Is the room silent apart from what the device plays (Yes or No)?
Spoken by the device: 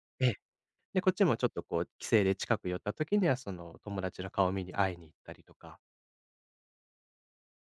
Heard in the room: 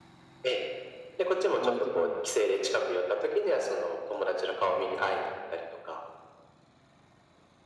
No